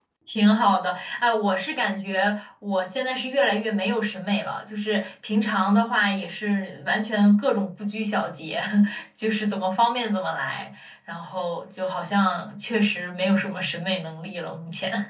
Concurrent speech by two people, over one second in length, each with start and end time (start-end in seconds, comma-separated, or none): none